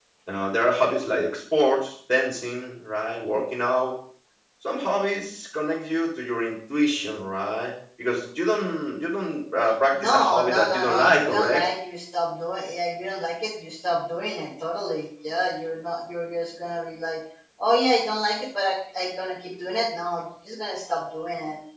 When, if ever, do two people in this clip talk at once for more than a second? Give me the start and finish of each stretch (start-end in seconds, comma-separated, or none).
9.9-11.7